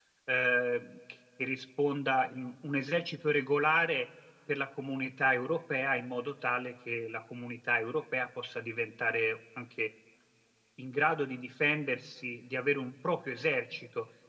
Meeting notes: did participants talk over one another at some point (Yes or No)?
No